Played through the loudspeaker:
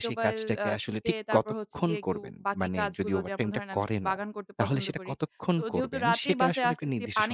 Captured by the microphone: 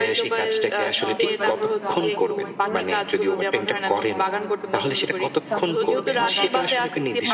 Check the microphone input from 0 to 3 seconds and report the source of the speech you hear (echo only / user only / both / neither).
both